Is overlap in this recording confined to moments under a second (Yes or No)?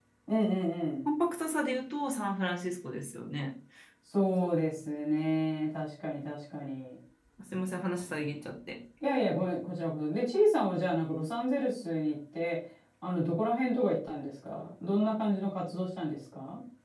Yes